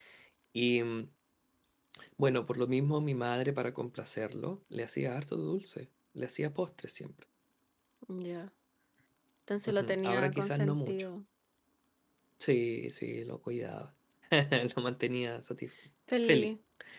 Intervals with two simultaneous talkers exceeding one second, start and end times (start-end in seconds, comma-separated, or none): 9.6-11.0